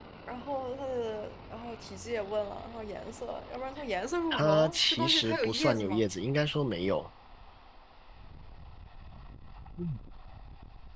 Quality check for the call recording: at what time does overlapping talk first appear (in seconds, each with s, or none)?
4.3 s